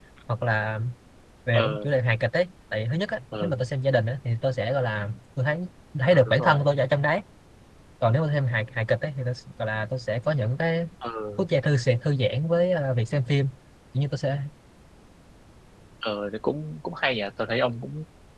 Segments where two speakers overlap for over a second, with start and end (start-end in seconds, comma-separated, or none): none